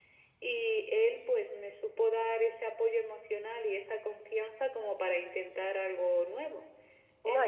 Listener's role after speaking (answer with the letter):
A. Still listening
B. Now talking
B